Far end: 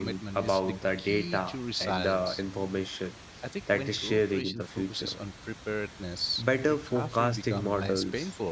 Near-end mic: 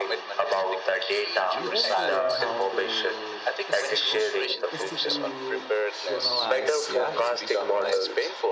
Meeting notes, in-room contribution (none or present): present